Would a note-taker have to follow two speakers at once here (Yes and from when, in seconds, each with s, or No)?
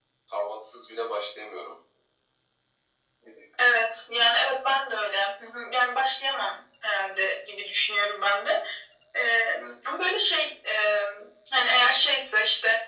No